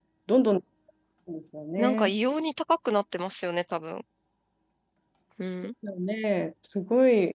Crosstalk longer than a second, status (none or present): none